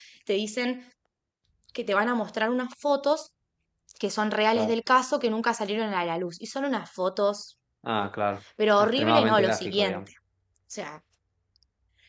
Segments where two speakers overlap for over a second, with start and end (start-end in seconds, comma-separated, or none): 8.8-10.0